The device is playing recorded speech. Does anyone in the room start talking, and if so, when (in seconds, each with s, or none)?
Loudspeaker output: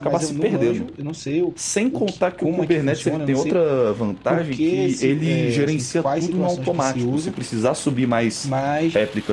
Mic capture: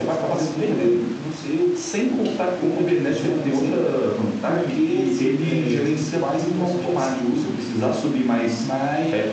none